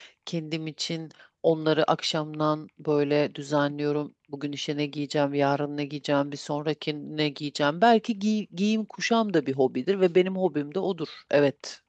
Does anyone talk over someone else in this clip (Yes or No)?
No